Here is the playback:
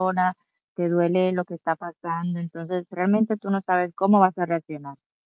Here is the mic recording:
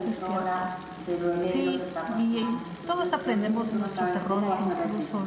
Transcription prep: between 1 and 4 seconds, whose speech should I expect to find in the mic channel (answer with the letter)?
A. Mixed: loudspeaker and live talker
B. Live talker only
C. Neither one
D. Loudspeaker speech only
A